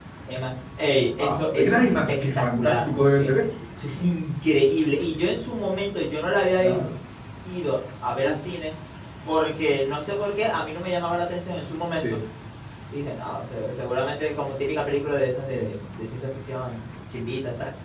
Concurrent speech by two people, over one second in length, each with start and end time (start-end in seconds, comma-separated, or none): 1.2-3.3